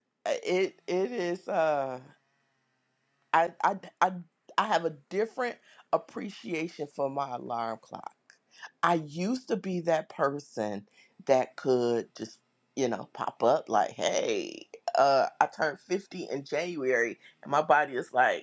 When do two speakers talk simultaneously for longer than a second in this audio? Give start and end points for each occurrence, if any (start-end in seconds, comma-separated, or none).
none